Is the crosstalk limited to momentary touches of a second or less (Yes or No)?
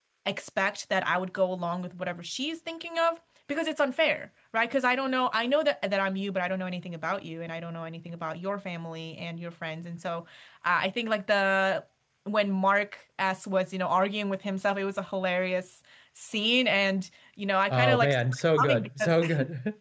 No